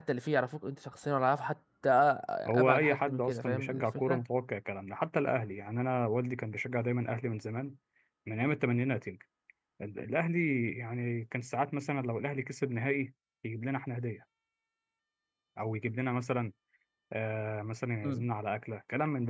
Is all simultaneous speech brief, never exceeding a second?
No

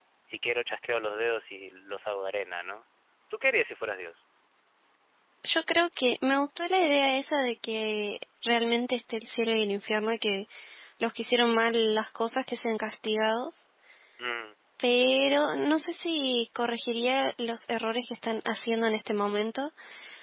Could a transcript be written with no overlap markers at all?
Yes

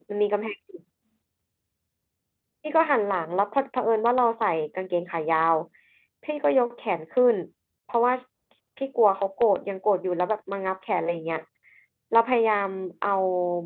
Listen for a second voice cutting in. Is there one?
No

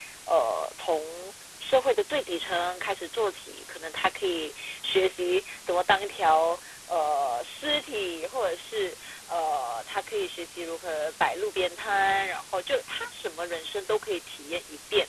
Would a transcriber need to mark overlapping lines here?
No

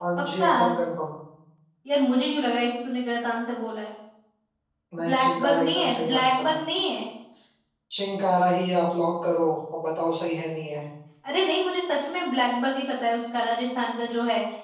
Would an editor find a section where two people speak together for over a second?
Yes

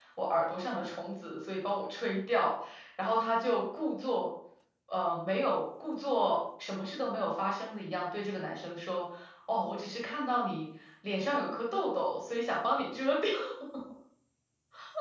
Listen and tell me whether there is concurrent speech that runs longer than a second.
No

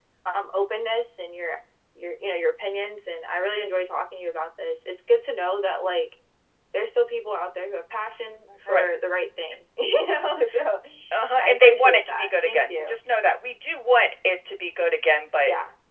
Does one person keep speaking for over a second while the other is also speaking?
Yes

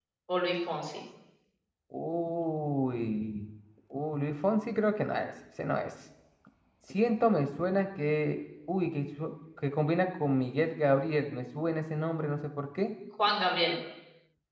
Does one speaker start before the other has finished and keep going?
No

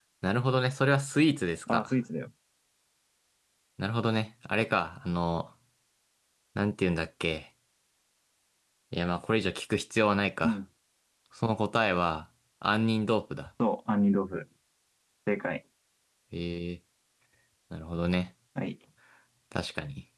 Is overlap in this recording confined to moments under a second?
Yes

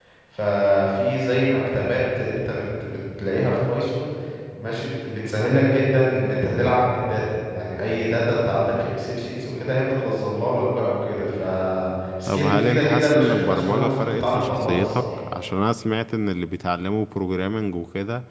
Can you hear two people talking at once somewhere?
Yes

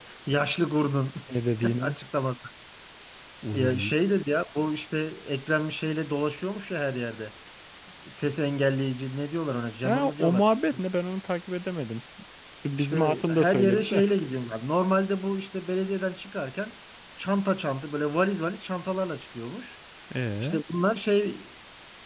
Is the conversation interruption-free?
No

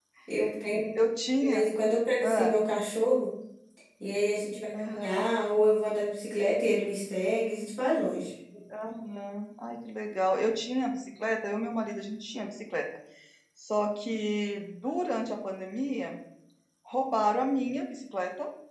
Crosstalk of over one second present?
No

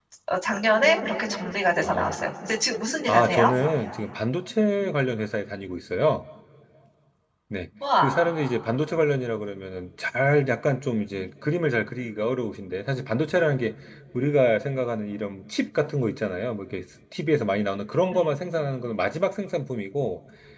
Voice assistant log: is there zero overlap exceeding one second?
Yes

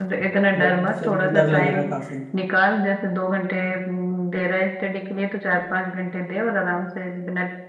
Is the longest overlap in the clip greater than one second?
Yes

